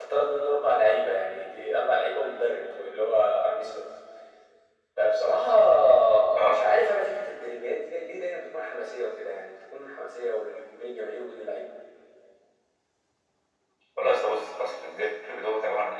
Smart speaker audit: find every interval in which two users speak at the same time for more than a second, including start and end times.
none

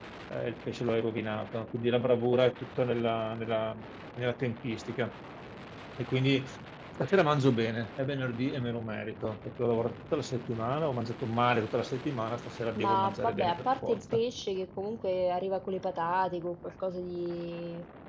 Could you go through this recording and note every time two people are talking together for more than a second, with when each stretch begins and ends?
12.8-14.2

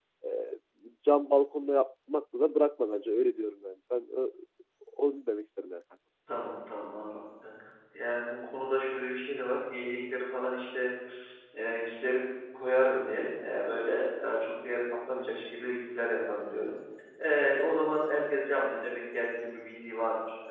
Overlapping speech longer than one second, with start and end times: none

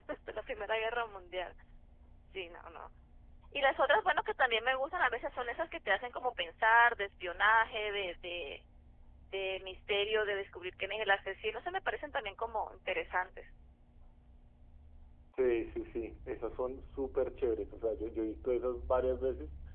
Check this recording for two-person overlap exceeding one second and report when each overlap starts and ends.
none

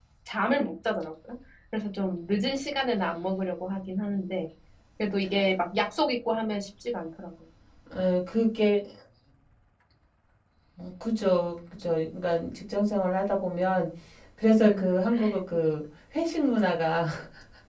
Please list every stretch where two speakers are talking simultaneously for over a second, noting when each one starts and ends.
none

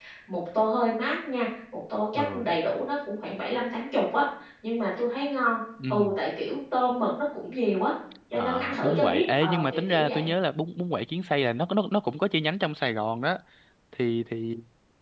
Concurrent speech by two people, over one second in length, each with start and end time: 8.3-10.3

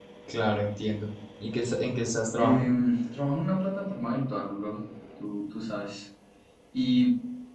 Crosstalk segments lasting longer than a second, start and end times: none

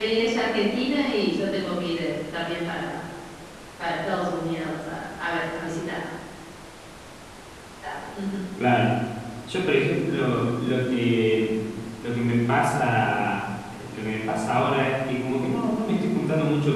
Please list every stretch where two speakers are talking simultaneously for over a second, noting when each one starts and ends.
none

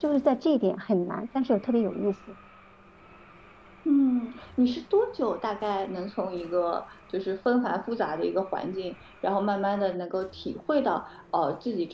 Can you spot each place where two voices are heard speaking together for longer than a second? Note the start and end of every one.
none

